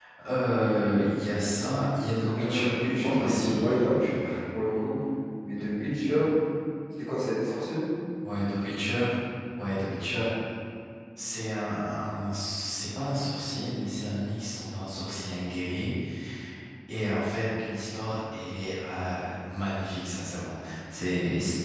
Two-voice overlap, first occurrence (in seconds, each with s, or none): 2.4 s